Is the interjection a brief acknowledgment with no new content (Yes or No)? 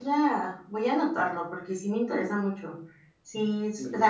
Yes